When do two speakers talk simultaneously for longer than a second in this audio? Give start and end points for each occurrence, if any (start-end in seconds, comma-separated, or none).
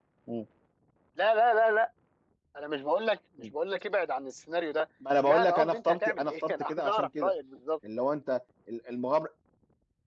5.3-7.3